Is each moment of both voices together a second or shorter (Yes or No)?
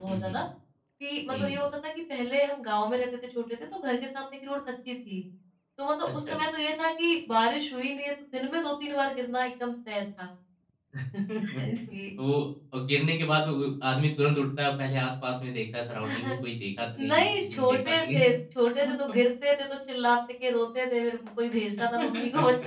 No